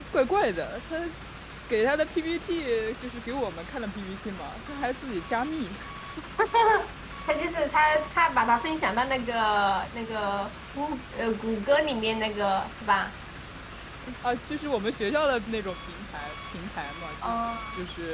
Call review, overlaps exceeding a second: none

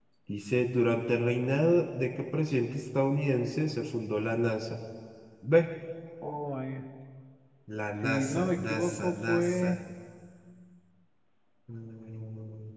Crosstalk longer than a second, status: present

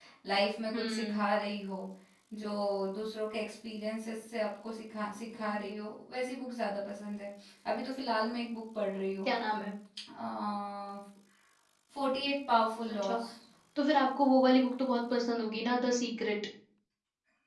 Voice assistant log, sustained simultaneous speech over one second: none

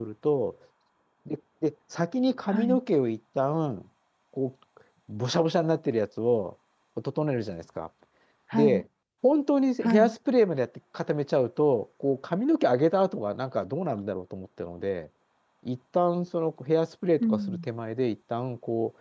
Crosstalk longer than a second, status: none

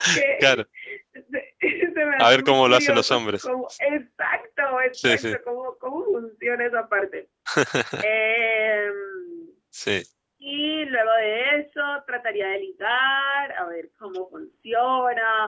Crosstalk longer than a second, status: present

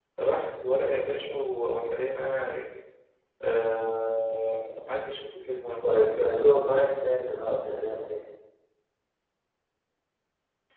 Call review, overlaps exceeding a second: none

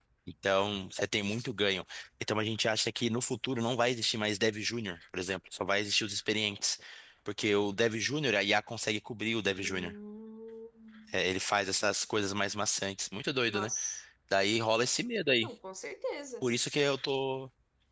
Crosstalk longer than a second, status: none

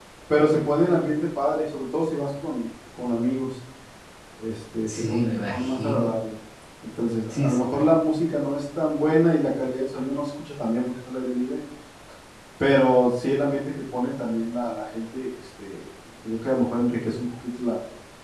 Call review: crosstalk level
present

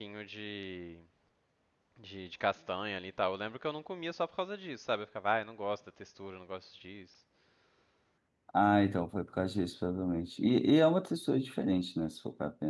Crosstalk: none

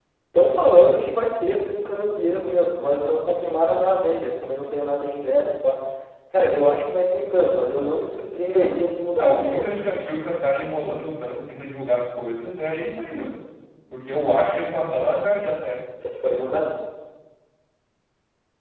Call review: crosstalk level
present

